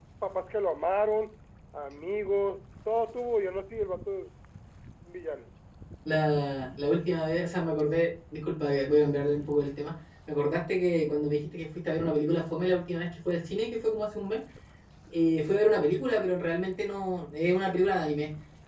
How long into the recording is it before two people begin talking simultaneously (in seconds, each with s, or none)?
none